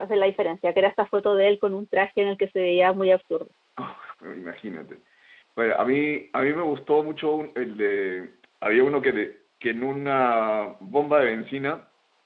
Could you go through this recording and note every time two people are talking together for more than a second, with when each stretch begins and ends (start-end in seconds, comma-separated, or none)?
none